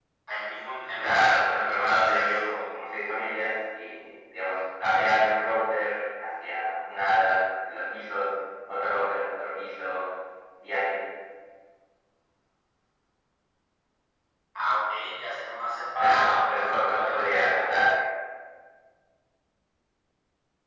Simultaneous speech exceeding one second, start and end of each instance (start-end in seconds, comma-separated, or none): 1.0-2.3, 16.0-17.9